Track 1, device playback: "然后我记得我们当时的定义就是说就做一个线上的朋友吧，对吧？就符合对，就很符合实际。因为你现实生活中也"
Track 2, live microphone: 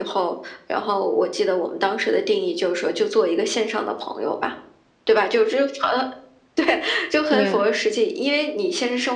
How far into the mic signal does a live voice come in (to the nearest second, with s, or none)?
7 s